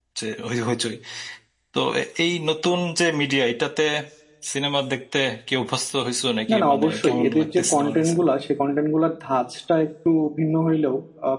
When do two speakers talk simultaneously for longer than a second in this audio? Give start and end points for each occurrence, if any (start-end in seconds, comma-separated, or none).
6.5-8.2